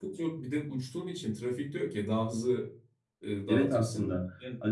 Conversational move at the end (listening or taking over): taking over